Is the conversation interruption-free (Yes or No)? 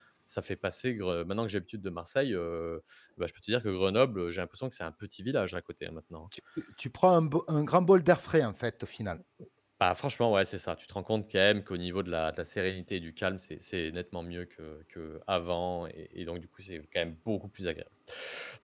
Yes